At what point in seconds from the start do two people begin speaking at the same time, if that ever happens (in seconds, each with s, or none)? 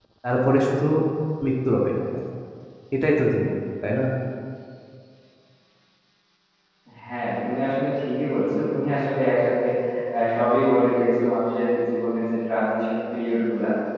none